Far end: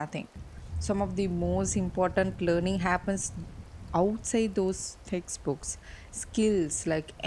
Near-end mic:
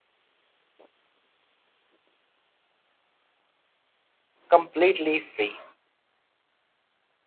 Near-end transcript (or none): completely free,